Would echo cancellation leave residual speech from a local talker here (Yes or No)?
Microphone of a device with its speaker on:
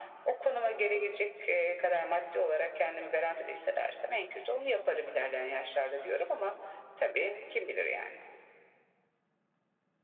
No